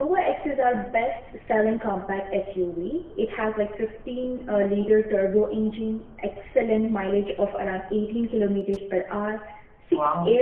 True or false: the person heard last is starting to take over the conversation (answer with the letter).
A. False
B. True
A